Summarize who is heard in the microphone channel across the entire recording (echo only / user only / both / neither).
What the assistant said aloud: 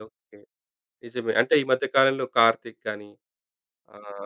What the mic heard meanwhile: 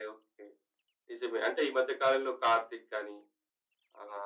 echo only